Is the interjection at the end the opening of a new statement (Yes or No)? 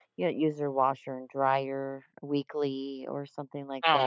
Yes